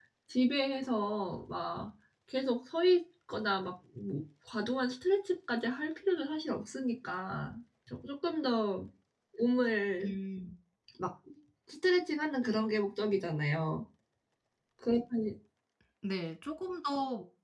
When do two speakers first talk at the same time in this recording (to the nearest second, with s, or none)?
none